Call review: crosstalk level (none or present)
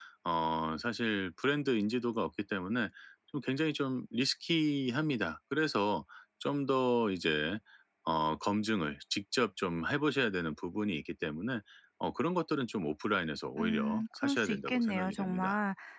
present